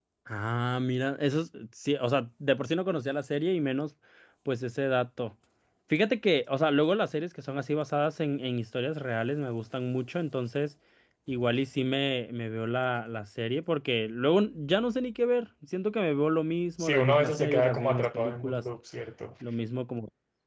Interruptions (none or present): present